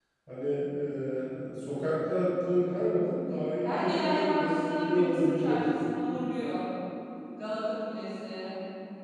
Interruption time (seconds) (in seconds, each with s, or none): 3.6 s